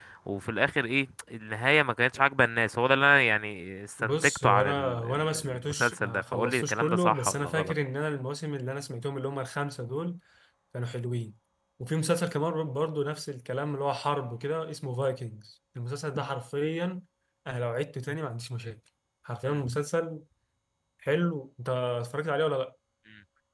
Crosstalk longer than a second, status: present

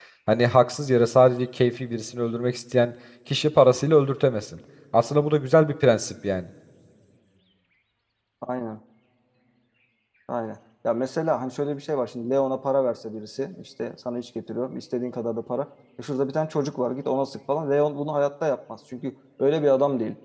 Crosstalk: none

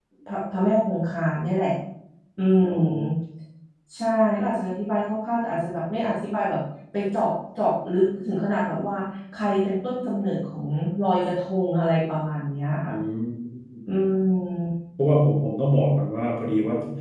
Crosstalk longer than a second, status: none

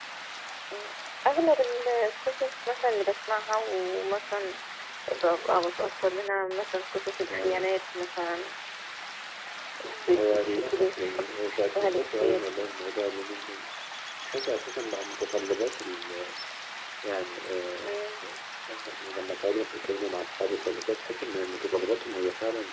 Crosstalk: present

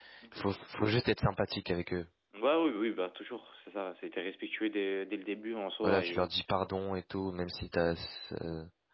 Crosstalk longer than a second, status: none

